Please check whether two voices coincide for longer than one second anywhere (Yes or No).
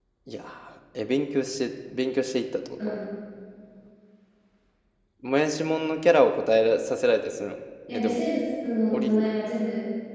No